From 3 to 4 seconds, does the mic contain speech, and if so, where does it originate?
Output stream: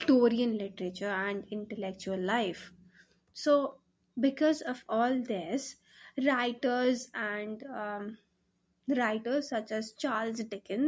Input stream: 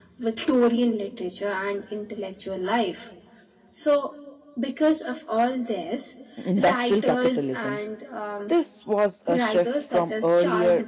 echo only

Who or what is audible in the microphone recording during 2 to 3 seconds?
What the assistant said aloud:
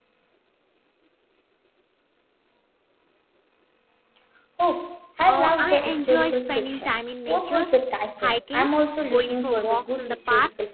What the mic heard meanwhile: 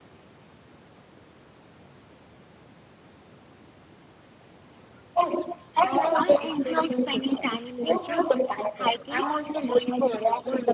neither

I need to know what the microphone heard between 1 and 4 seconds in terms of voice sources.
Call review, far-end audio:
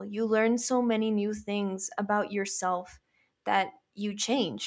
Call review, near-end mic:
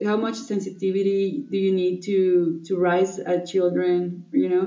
user only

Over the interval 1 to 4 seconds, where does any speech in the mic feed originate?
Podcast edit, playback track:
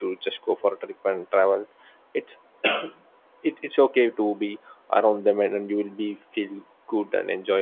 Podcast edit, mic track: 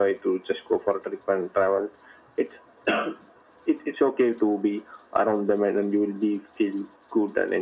echo only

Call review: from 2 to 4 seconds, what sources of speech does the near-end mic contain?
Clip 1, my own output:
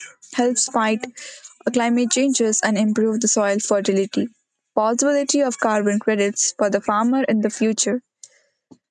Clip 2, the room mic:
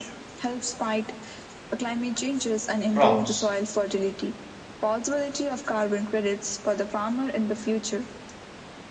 both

